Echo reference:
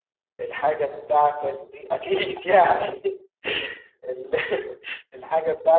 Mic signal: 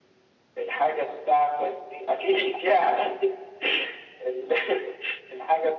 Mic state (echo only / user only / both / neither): echo only